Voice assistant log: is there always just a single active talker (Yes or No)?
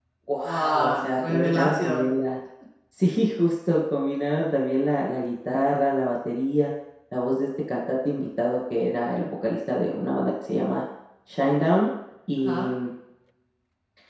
No